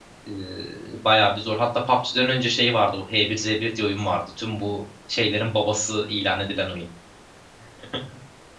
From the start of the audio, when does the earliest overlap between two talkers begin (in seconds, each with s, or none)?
none